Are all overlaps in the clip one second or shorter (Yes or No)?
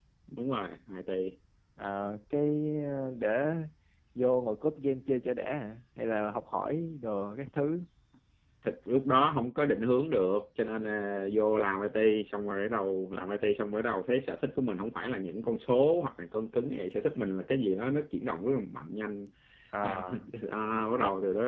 Yes